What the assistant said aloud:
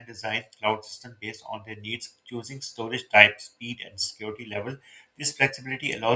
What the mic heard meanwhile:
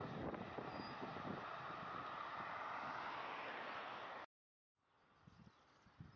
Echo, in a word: none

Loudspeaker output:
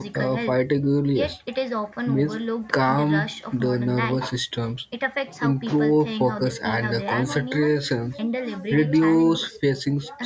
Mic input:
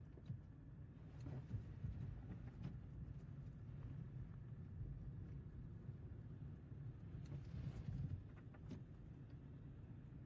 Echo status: none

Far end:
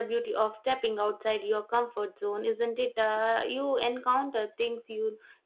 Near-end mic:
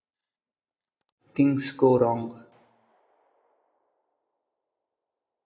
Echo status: none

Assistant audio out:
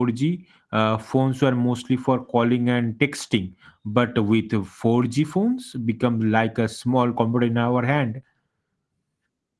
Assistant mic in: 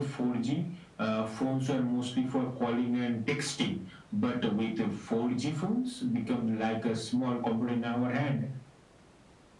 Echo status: present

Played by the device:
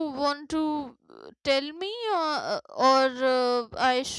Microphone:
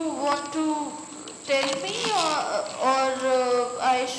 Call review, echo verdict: present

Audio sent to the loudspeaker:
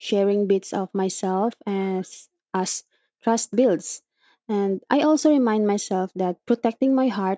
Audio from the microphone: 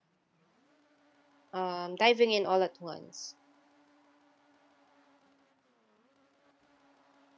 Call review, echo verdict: none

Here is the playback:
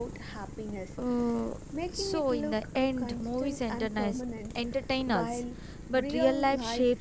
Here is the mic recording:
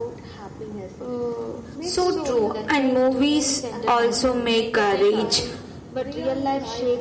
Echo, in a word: present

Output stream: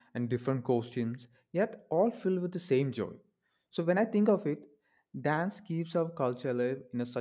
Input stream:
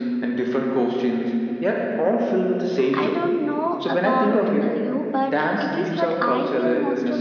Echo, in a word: present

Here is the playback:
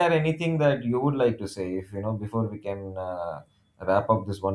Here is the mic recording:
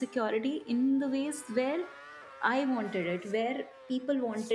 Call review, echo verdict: none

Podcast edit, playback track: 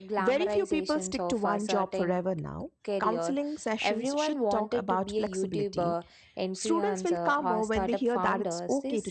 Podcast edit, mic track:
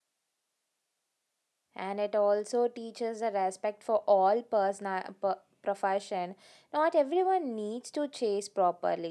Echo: none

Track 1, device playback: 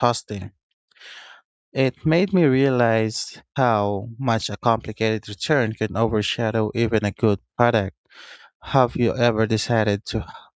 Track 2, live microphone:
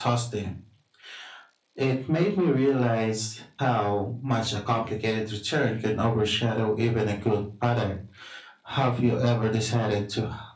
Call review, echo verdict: present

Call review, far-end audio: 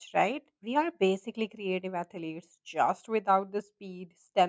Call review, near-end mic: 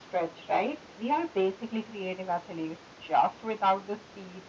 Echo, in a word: present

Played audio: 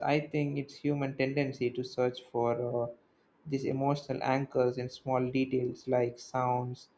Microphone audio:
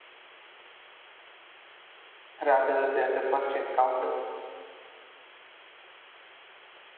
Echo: none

